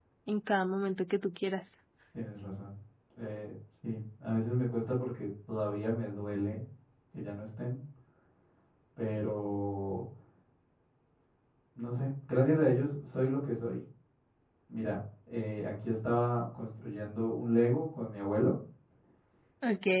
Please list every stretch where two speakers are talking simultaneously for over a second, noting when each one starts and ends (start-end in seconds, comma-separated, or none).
none